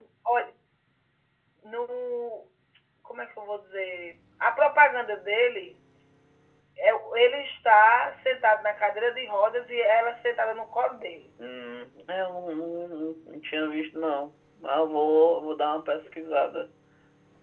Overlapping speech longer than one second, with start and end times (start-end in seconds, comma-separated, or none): none